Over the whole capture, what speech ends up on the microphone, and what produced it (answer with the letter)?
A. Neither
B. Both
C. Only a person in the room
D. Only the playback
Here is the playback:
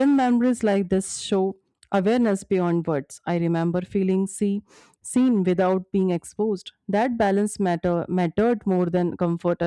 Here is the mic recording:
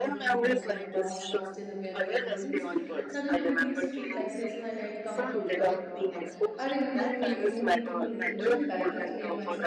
B